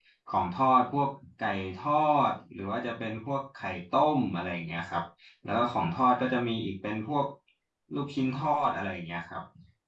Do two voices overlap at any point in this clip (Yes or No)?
No